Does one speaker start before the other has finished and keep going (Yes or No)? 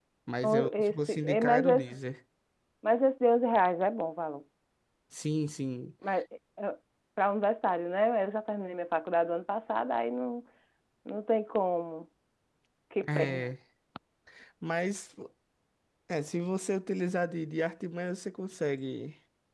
Yes